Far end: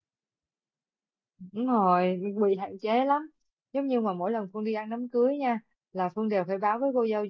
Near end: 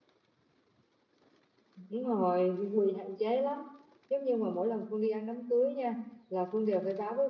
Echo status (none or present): present